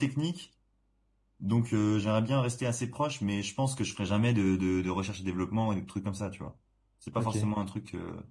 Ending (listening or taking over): listening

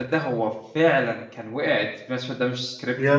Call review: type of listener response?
listening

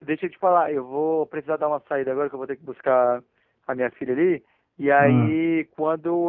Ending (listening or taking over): listening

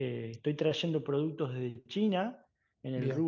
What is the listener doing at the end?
listening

